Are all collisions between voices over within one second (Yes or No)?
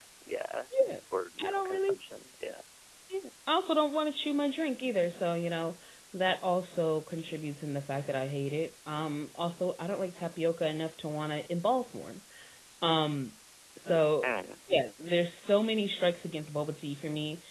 Yes